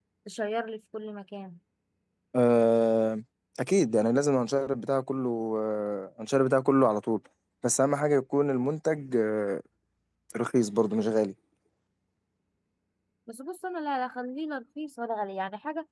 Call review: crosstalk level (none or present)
none